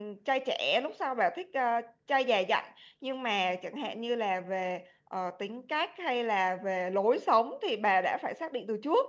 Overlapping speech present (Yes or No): No